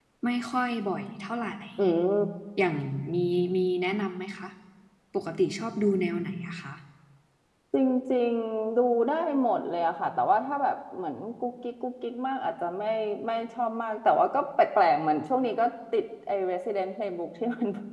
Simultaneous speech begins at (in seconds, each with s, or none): none